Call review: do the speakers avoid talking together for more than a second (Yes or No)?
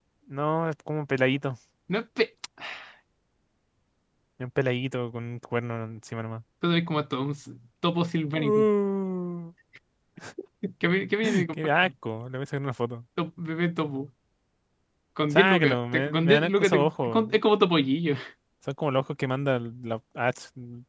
No